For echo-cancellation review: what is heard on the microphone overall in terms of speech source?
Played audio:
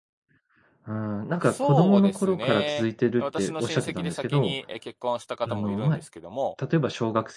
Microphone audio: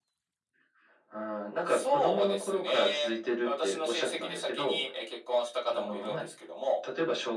echo only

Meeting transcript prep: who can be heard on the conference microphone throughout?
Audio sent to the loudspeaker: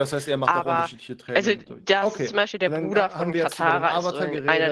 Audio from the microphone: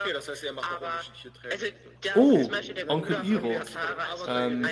both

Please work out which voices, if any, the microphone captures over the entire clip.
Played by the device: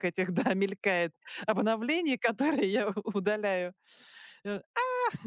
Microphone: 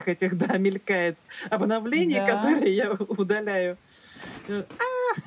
both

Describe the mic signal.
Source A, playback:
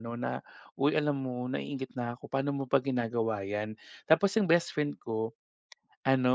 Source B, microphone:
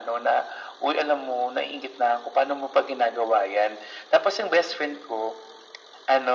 echo only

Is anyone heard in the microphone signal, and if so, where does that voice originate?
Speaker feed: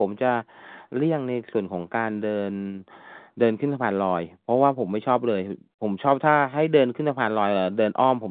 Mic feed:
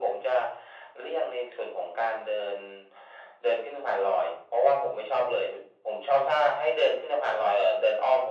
echo only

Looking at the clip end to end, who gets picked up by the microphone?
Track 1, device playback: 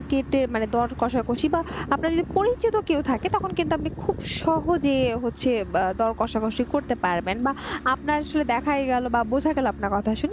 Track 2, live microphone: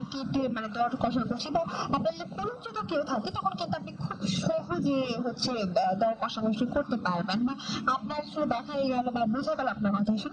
echo only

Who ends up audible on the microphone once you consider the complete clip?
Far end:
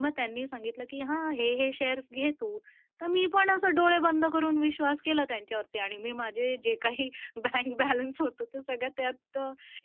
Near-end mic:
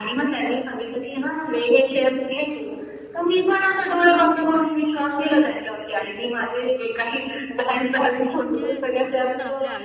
both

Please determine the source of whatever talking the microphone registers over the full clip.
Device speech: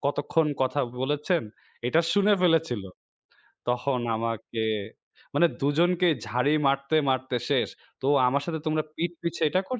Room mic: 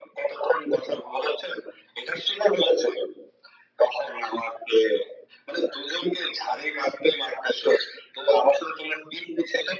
echo only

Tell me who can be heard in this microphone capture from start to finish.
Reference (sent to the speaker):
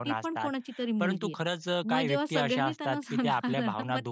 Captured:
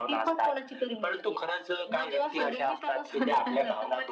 echo only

